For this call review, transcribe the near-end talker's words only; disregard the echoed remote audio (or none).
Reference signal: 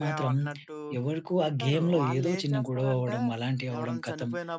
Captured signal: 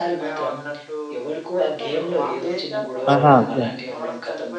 ఆహా! ఓకే.